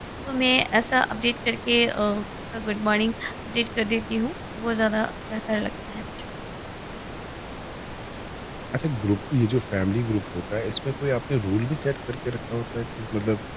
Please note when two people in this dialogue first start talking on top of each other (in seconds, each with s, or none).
none